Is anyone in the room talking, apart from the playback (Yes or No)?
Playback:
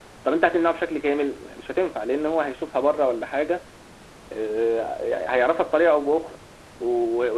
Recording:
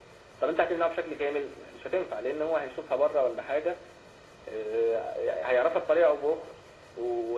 No